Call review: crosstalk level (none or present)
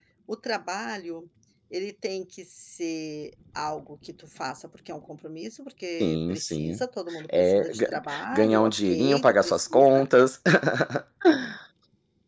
present